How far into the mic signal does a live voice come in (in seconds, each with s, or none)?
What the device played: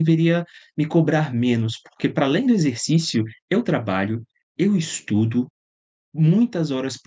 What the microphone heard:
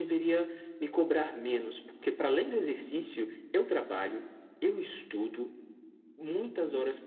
none